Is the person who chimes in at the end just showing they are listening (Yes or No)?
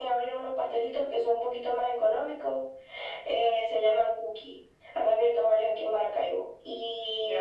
No